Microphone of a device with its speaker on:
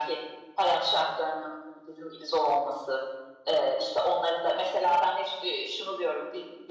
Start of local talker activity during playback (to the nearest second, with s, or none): none